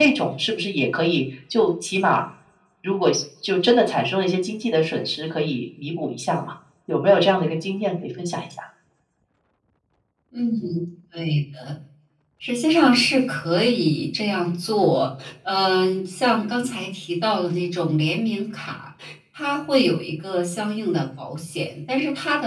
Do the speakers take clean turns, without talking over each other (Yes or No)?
Yes